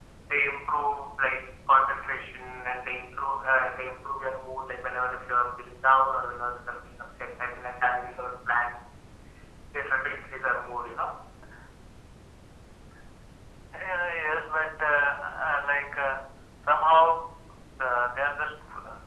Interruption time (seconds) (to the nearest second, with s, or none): none